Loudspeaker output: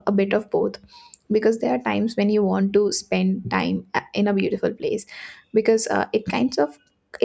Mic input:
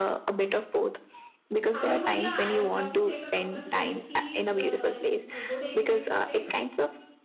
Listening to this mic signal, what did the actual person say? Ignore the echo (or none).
however yeah i would love to take a couple of selfies uh, in a good ambience place